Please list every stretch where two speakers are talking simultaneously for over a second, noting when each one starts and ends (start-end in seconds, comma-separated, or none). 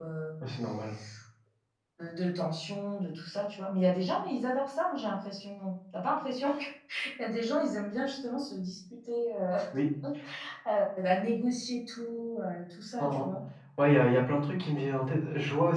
none